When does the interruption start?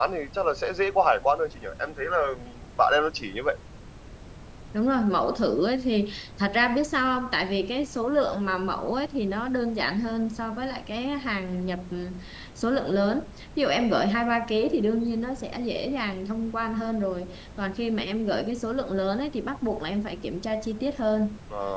none

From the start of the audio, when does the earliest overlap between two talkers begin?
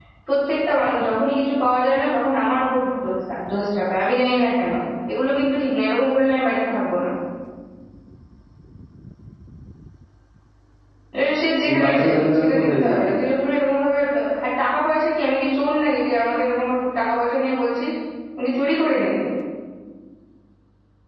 11.6 s

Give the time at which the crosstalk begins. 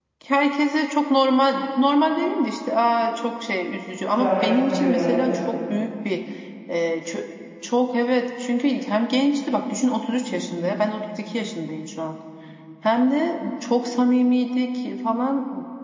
4.1 s

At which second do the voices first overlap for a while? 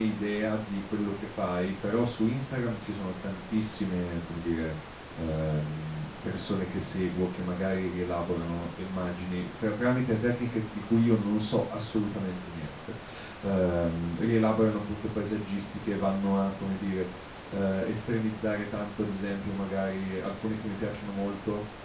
none

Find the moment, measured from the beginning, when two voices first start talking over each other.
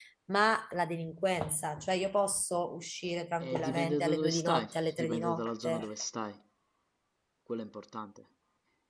3.4 s

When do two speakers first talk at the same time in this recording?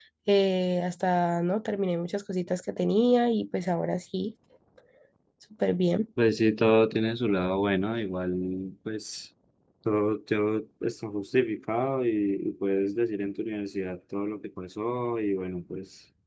none

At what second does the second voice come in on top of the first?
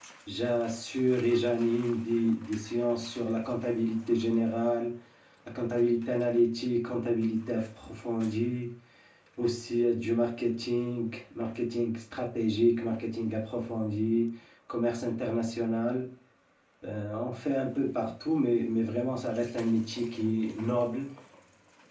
none

